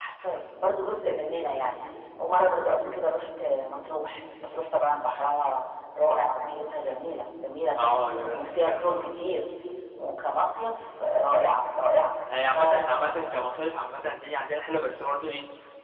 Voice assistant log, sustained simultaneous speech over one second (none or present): present